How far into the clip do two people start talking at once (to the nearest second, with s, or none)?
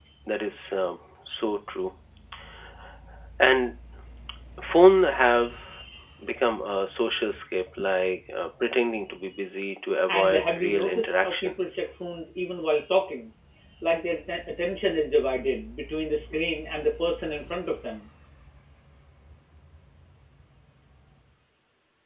10 s